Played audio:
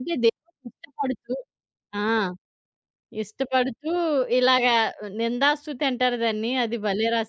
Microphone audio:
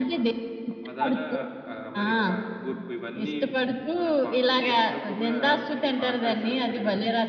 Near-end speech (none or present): present